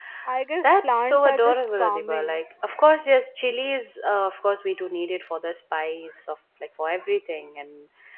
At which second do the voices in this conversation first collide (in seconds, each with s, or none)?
0.6 s